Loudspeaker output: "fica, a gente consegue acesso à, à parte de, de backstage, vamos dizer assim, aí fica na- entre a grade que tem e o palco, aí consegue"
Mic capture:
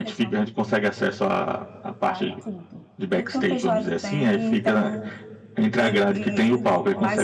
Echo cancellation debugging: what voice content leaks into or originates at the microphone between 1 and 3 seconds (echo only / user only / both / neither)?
both